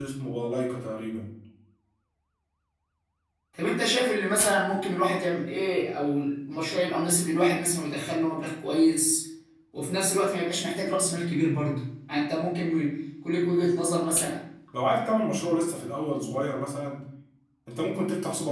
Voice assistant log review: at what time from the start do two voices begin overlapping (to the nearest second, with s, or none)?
none